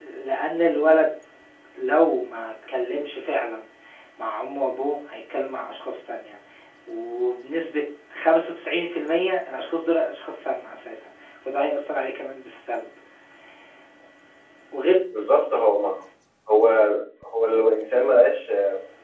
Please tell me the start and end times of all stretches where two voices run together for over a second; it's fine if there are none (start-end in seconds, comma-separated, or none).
none